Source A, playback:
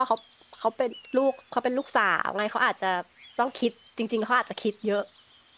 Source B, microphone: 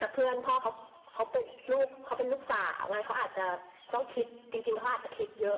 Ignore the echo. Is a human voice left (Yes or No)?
No